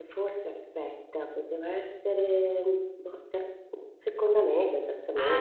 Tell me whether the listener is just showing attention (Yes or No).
No